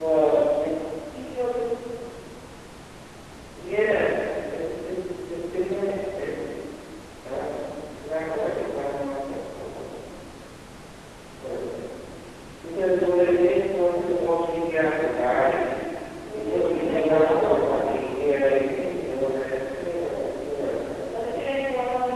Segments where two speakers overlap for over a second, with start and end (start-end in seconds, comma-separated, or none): 16.3-17.9